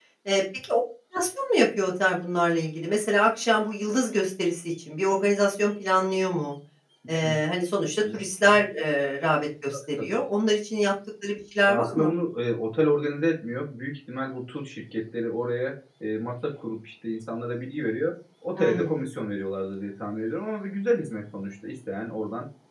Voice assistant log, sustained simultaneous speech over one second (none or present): none